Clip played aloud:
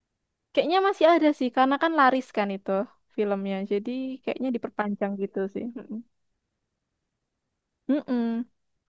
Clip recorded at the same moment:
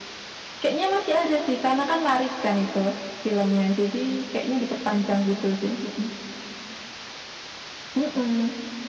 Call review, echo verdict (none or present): present